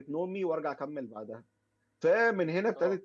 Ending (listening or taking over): listening